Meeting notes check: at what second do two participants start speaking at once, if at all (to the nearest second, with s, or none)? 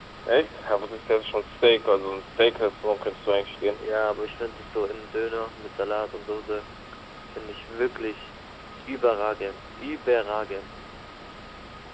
none